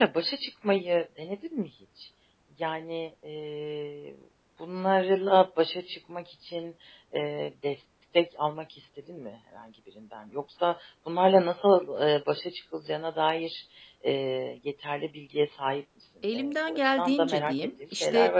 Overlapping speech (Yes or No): Yes